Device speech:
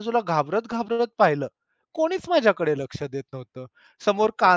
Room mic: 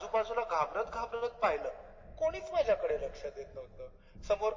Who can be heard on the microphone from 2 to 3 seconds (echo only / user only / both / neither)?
echo only